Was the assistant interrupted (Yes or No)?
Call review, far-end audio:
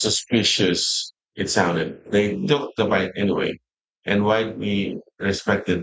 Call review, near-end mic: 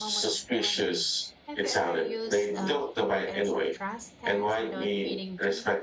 Yes